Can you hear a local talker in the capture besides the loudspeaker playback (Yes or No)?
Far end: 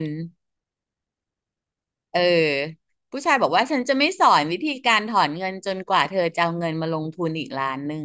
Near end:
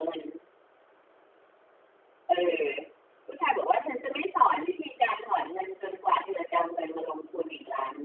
No